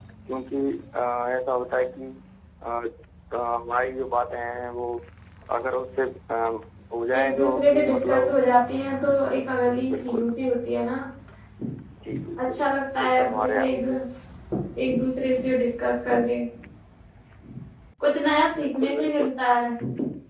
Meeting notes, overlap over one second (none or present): present